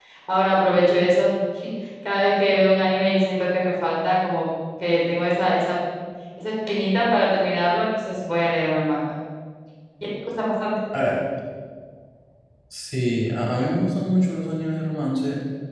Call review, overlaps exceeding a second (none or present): none